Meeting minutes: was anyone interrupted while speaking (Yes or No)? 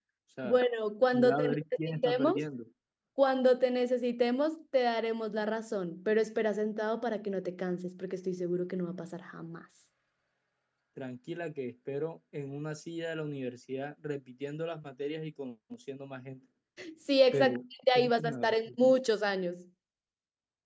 Yes